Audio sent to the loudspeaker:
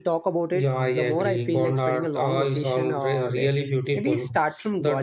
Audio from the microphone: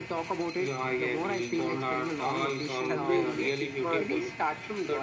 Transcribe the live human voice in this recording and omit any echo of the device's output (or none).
Chanderi, Tikmarg, uh,